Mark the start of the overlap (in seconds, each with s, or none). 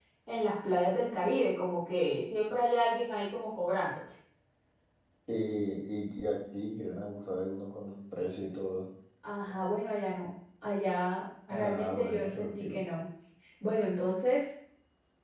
11.5 s